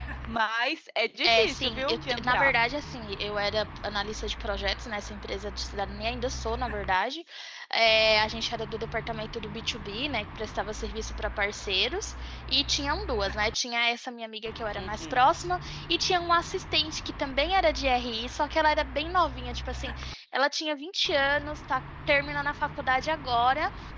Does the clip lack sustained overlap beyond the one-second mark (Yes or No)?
No